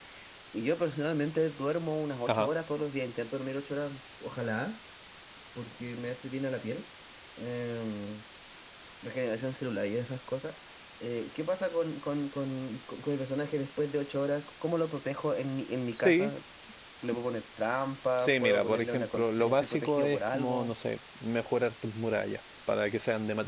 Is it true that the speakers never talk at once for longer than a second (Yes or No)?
No